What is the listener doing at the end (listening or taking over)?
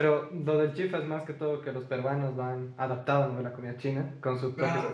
taking over